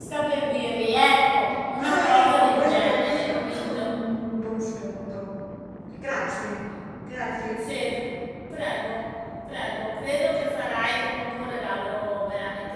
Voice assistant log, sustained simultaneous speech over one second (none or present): present